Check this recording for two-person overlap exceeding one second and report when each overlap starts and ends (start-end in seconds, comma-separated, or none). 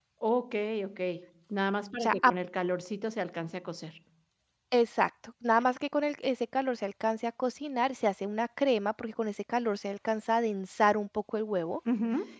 none